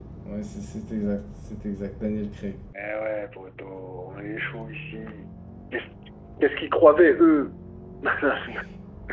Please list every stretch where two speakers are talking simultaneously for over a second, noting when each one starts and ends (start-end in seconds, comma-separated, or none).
none